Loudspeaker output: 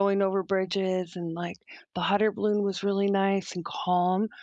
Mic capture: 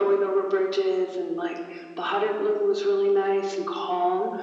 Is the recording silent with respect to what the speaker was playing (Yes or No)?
No